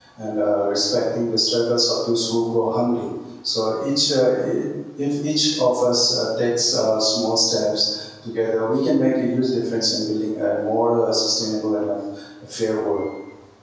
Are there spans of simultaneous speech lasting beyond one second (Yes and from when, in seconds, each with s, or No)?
No